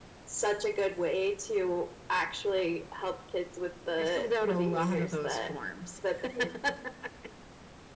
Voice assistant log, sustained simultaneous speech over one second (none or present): present